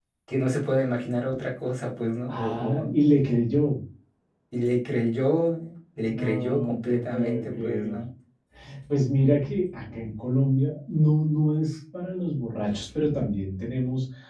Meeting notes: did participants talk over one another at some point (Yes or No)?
Yes